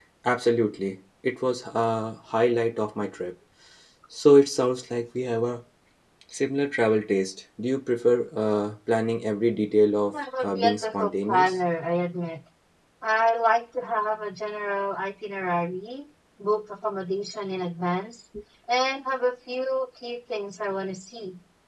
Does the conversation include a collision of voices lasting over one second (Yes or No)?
Yes